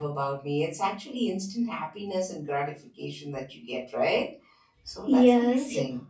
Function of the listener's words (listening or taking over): taking over